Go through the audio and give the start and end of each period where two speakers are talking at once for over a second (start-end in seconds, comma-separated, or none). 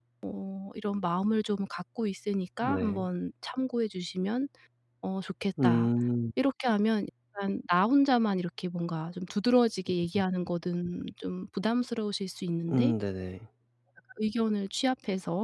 none